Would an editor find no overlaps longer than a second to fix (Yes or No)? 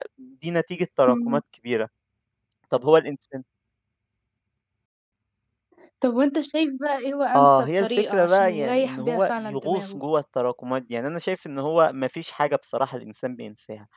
No